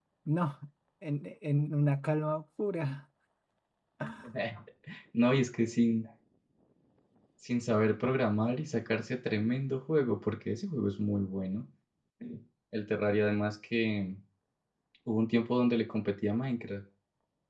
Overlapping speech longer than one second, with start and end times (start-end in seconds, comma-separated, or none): none